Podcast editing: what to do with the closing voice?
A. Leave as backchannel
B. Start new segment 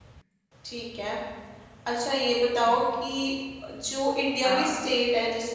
A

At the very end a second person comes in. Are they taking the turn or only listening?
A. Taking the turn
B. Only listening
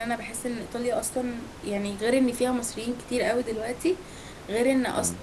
B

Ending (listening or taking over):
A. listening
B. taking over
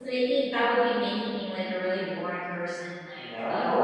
B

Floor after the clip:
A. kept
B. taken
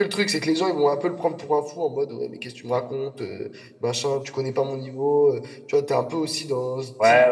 B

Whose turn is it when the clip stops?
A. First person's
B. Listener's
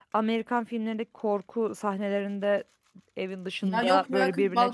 B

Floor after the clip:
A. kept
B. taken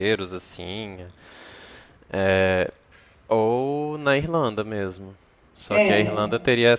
A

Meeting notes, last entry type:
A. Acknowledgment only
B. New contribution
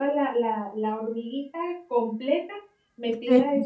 A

